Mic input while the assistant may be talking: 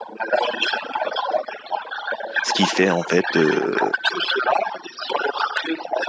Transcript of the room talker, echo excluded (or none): Ce qui fait en fait, euh,